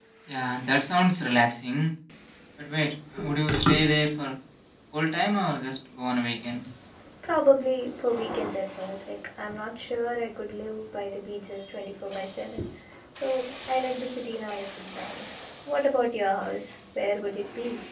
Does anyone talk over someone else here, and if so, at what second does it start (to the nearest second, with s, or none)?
none